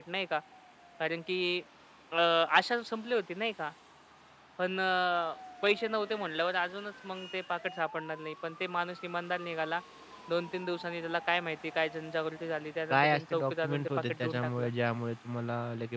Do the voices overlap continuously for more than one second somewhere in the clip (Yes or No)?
Yes